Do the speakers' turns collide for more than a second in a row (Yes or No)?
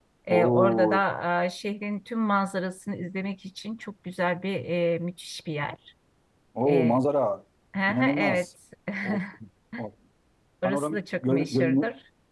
Yes